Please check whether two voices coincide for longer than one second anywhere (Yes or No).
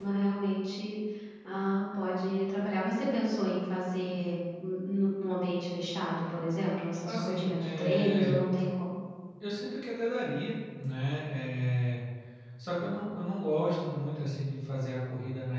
Yes